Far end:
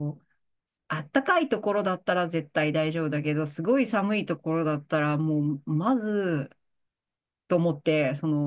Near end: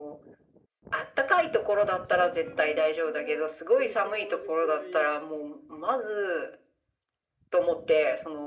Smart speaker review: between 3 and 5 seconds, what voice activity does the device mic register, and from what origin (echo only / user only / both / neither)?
both